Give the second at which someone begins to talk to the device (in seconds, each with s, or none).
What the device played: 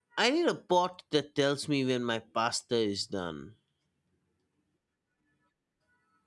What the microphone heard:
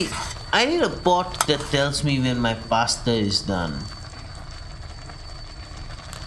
none